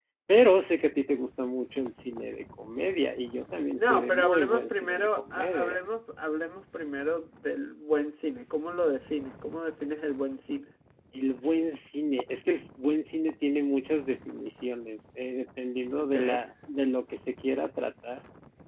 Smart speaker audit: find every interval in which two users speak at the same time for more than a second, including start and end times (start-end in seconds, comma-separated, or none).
3.8-5.8